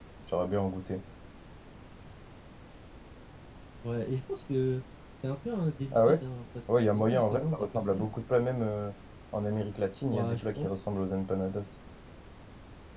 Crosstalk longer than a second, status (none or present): present